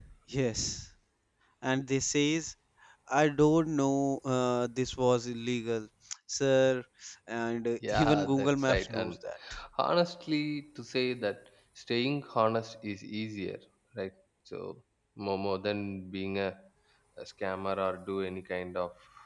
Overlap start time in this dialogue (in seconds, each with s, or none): 7.9 s